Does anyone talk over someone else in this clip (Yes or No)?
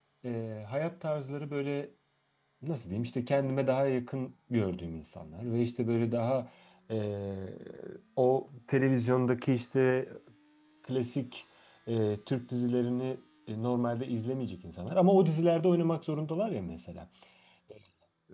No